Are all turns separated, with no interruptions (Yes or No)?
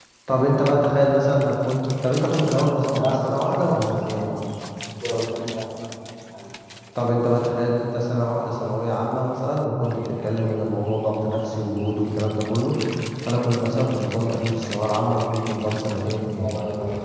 No